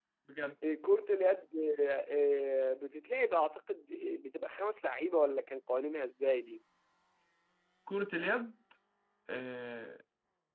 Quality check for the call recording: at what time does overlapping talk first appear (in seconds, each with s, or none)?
none